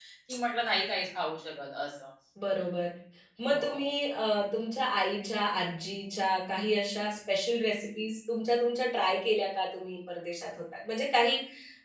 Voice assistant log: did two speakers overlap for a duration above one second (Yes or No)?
No